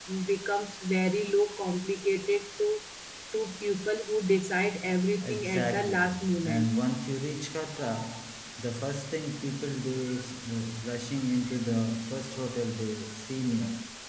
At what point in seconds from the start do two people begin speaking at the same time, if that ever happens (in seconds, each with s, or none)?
5.2 s